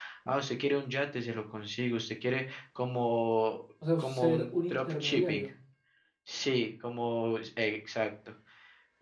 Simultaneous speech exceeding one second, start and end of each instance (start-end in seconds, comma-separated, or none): 4.0-5.5